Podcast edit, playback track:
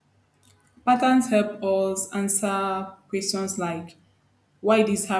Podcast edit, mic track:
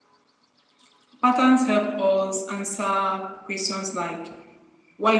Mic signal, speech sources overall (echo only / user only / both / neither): echo only